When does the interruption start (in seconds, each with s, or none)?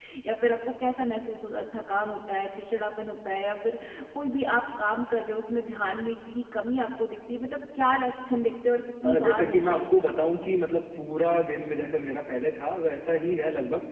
9.0 s